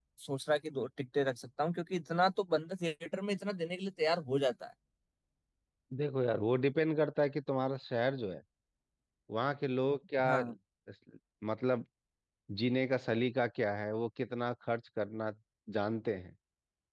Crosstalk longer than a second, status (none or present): none